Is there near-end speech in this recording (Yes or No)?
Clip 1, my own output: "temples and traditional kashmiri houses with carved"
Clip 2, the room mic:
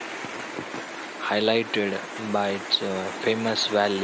Yes